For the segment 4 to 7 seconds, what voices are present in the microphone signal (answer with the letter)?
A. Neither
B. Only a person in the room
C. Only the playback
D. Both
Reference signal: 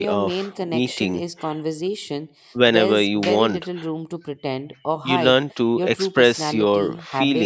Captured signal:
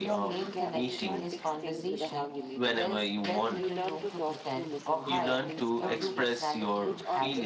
D